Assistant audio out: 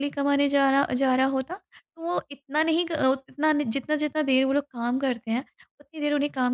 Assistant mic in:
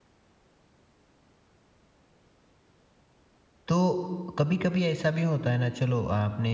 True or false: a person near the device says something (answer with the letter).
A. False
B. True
B